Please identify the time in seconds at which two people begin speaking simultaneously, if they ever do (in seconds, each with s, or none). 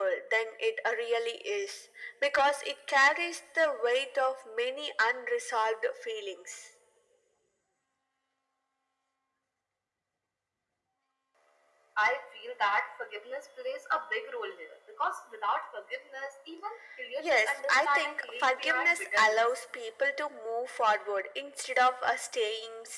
17.2 s